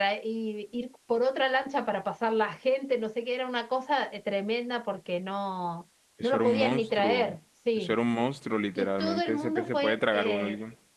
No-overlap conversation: No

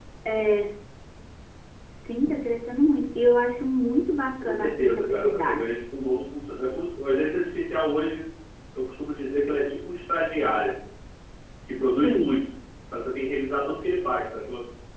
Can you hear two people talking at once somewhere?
Yes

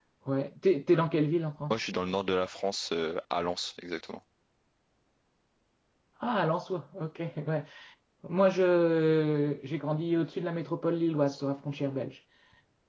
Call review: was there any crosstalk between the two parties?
No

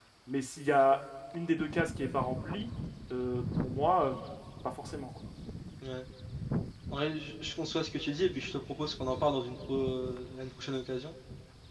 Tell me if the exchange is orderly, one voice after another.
Yes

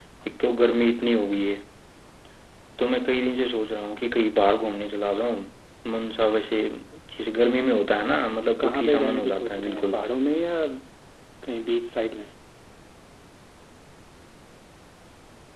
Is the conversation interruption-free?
No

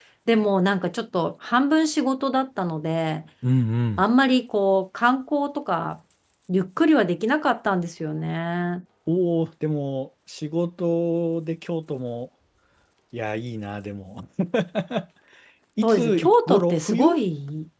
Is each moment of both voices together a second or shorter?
No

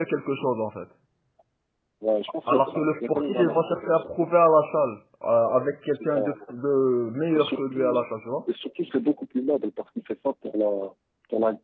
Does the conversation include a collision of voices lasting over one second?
Yes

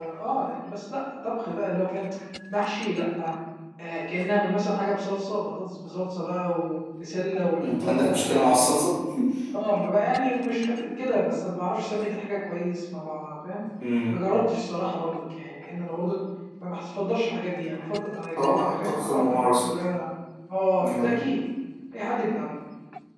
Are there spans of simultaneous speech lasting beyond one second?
Yes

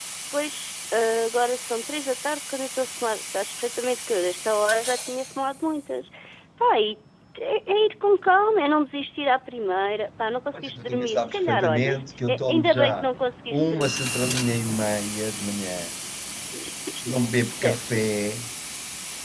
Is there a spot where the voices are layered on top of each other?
Yes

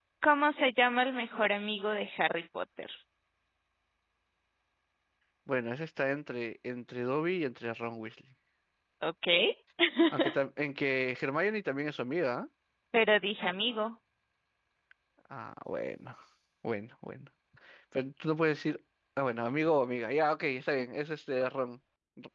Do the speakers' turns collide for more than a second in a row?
No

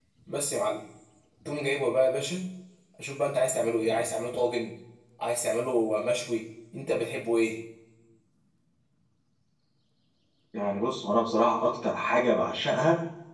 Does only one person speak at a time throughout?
Yes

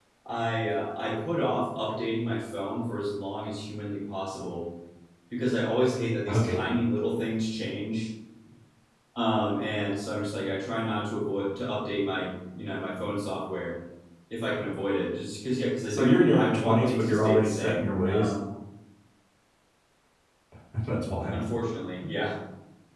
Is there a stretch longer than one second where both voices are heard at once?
Yes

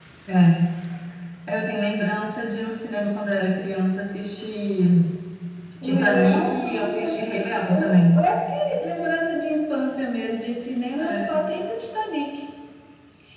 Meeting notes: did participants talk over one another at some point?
Yes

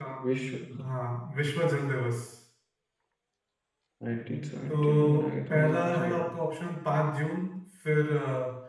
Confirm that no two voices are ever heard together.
No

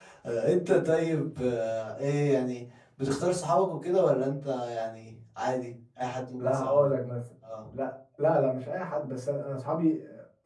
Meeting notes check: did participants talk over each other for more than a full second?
No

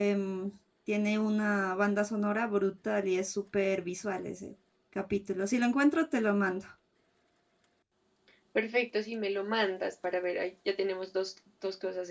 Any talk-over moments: No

